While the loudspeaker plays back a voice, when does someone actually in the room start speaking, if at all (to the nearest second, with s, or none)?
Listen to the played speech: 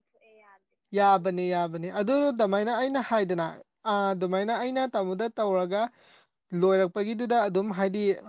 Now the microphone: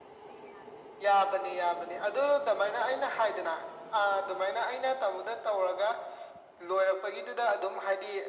none